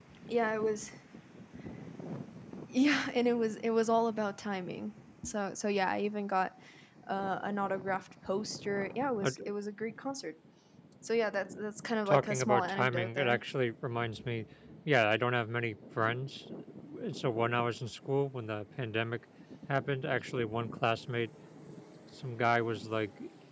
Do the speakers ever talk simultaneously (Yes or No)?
Yes